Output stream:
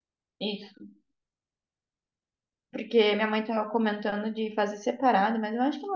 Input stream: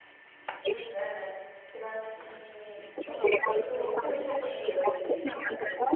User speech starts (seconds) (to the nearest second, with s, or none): 1 s